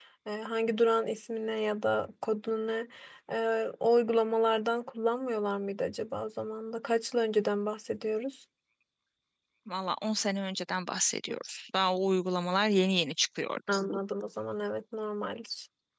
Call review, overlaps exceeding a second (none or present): none